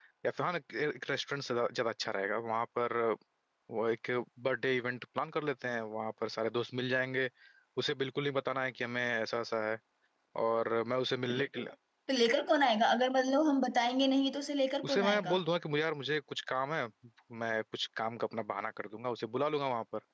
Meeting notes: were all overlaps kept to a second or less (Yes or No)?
Yes